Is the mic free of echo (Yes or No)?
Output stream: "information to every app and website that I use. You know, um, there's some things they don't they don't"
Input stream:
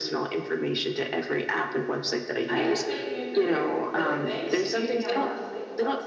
No